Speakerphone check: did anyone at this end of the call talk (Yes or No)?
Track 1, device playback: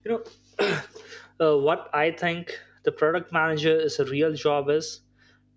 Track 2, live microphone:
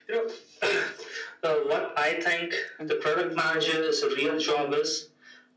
Yes